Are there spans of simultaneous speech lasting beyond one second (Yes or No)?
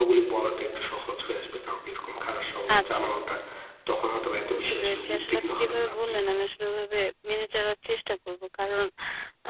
Yes